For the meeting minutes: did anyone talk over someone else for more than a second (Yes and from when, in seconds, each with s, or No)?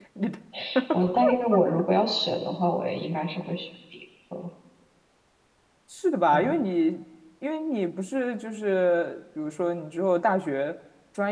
No